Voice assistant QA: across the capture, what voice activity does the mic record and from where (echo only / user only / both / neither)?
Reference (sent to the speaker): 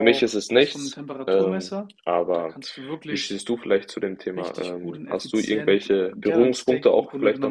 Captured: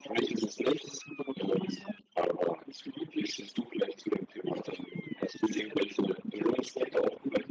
echo only